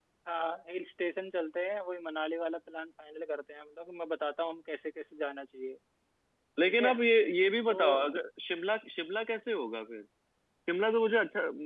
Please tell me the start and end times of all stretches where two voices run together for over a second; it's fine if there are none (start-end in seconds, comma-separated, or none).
none